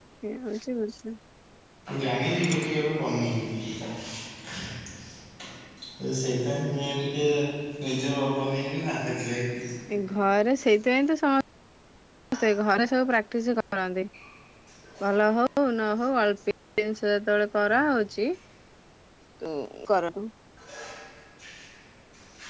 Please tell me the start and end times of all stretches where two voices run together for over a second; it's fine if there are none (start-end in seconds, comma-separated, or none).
none